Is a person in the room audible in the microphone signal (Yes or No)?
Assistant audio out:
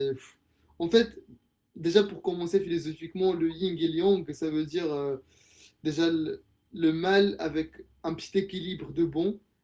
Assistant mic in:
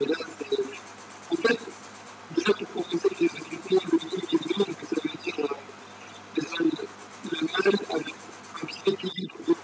No